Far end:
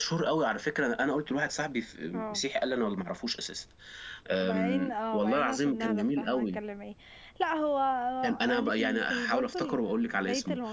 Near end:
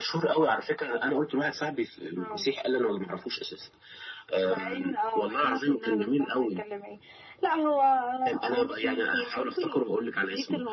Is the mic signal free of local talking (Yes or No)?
Yes